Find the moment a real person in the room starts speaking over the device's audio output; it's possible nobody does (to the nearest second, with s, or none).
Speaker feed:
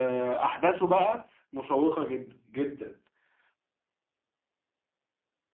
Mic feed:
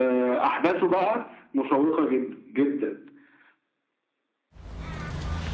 none